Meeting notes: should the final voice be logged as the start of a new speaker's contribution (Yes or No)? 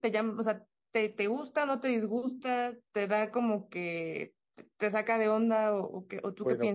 Yes